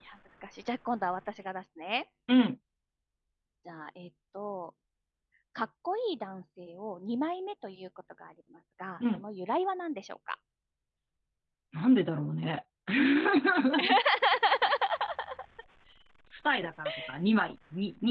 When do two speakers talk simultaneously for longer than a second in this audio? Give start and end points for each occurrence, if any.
none

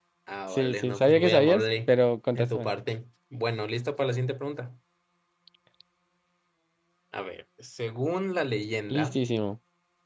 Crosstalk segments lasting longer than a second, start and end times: 0.5-1.9

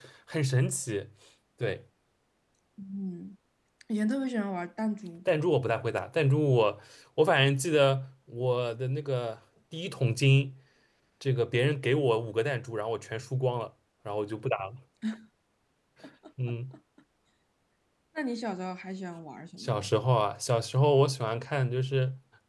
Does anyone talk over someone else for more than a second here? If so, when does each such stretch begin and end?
none

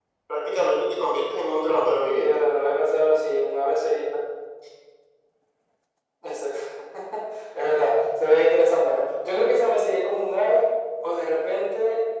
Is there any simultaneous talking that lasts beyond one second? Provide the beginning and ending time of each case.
none

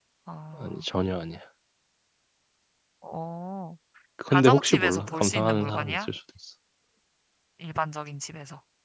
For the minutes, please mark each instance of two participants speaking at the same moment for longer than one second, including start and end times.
4.3-6.1

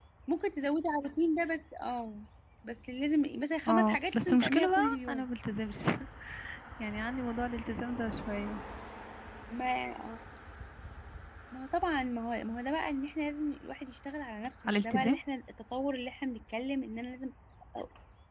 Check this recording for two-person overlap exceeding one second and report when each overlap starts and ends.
3.7-5.3

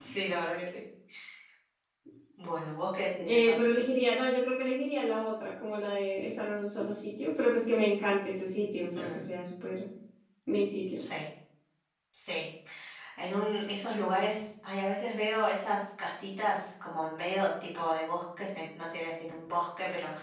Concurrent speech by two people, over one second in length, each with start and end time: none

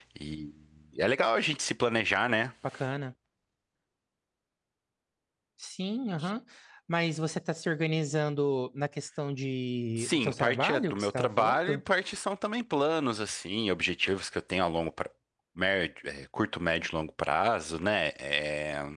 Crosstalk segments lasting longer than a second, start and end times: 10.0-11.8

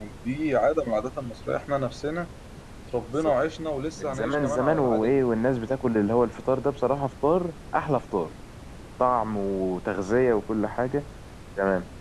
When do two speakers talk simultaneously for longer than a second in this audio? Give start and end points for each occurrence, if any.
4.0-5.2

